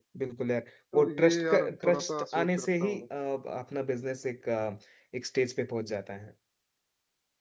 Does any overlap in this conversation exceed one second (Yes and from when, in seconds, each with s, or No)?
Yes, from 0.9 s